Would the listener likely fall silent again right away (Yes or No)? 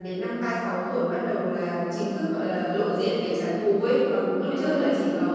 Yes